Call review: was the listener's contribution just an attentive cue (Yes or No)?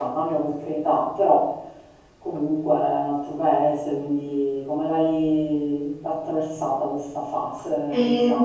No